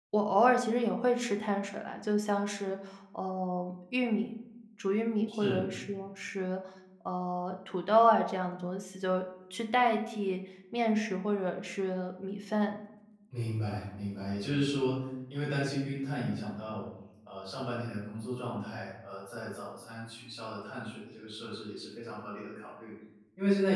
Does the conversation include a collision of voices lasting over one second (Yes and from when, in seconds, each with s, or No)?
No